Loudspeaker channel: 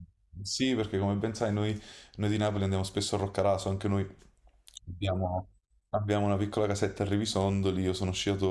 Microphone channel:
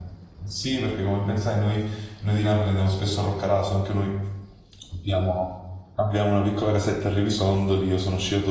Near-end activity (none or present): none